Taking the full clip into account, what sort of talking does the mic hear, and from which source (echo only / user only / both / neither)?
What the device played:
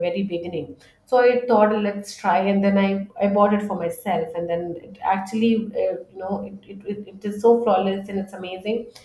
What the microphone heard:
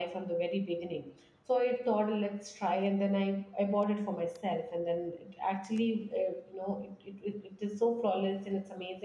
echo only